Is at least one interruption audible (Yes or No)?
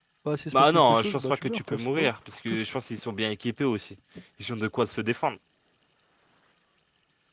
Yes